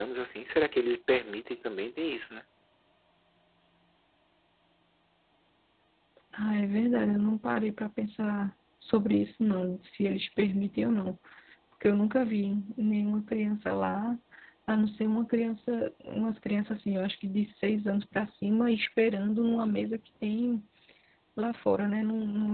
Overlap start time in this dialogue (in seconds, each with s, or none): none